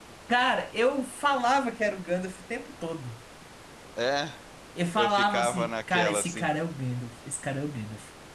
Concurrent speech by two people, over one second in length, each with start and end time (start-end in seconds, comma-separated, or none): 5.0-6.5